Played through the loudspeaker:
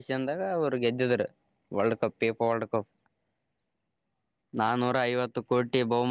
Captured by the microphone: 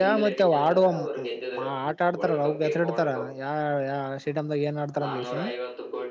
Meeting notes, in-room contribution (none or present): present